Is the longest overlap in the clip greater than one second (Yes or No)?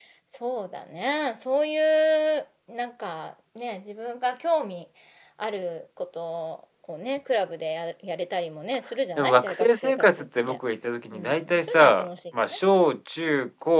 Yes